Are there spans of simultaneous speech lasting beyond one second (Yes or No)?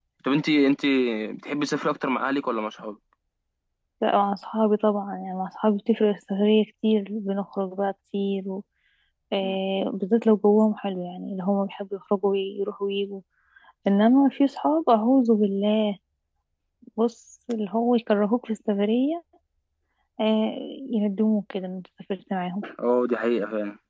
No